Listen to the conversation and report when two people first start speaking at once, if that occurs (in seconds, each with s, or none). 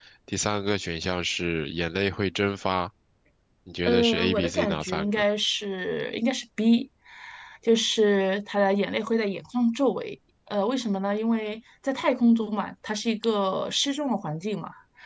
3.9 s